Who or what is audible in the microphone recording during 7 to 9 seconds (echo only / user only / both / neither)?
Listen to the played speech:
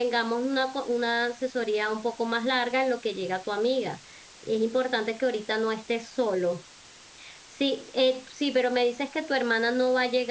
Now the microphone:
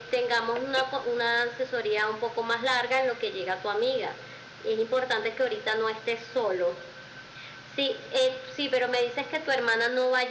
echo only